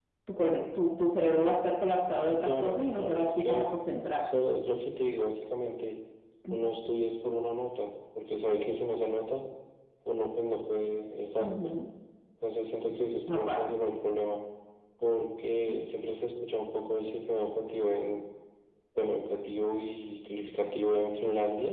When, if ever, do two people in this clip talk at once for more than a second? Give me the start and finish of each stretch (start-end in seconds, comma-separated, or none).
2.4-3.6